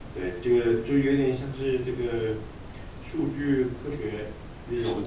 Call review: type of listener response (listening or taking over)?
listening